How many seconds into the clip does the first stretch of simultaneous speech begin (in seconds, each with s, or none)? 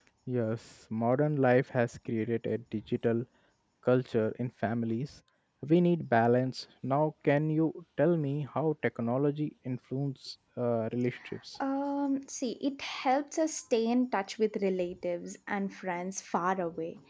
none